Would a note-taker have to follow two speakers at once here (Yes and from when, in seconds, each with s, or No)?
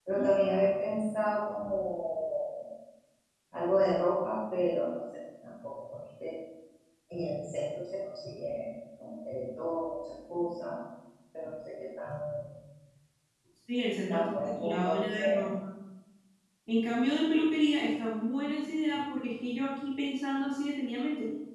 Yes, from 14.1 s